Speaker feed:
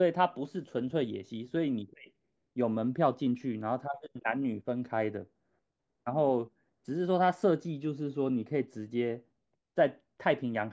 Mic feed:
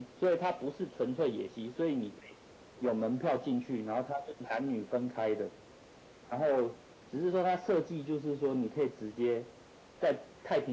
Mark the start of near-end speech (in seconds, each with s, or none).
none